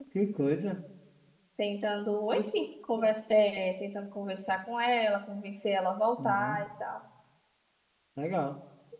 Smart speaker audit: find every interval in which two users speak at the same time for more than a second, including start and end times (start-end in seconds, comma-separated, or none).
none